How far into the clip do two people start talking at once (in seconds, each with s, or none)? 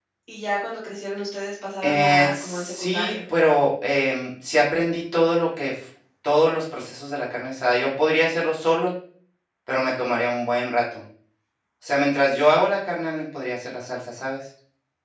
1.8 s